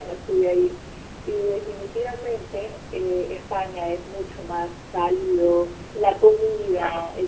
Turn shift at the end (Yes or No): No